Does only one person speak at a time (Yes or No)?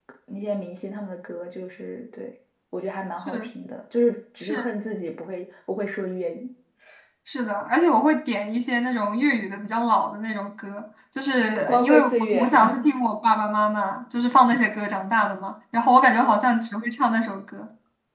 No